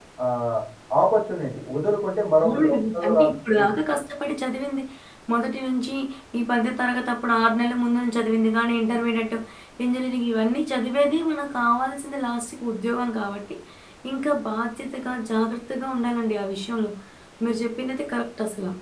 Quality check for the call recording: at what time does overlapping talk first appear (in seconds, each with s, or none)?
2.4 s